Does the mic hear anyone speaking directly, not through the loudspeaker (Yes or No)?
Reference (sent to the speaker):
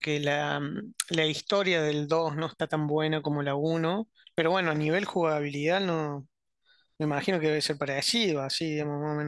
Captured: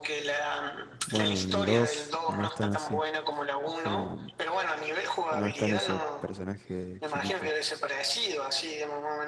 Yes